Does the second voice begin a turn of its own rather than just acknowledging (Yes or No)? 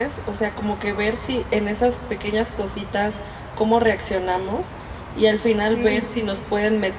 No